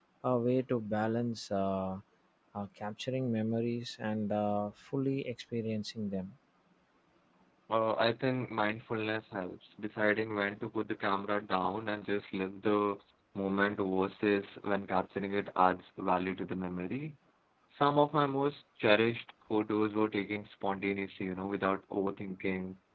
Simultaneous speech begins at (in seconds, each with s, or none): none